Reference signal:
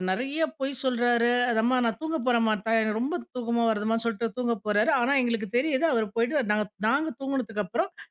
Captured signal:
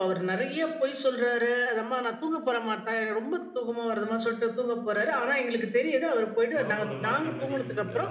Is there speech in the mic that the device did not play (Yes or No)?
Yes